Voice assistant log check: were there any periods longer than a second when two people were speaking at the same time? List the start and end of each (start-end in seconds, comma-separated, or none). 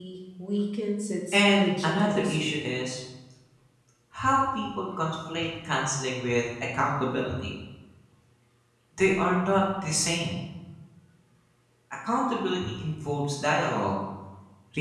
1.3-2.6